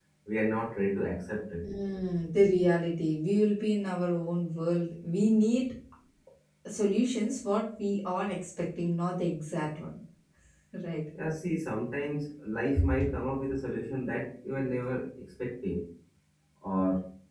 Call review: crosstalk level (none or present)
none